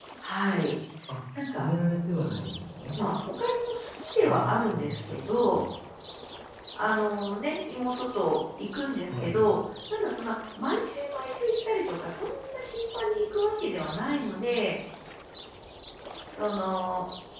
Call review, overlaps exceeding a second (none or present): present